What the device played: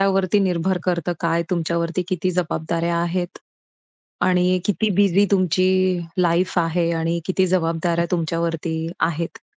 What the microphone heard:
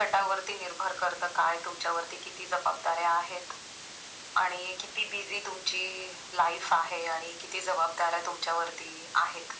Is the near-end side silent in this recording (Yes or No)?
Yes